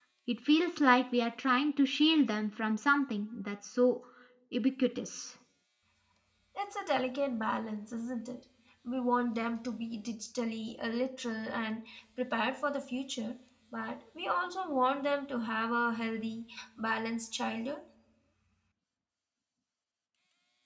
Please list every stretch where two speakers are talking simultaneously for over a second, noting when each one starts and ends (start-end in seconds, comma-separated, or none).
none